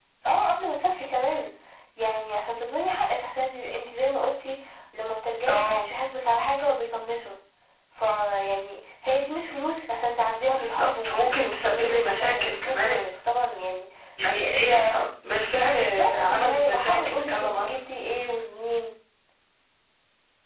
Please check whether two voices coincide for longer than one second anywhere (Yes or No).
Yes